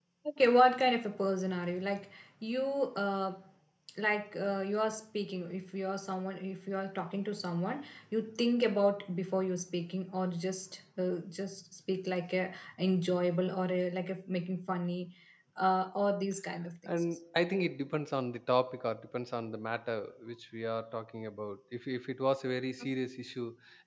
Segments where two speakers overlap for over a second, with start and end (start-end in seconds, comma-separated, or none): none